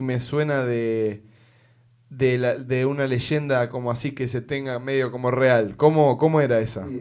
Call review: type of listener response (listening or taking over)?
taking over